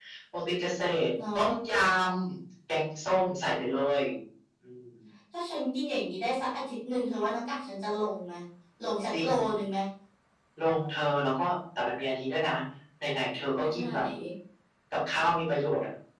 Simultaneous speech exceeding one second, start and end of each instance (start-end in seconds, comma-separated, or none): none